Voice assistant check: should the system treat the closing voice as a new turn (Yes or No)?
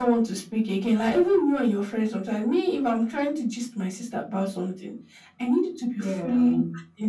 No